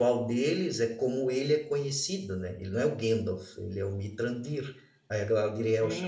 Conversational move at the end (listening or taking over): taking over